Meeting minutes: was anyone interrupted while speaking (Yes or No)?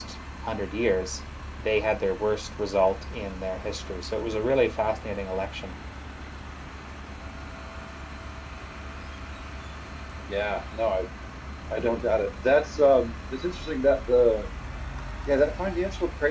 No